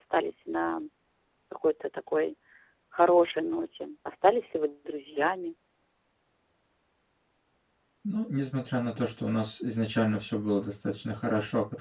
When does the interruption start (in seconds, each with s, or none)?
none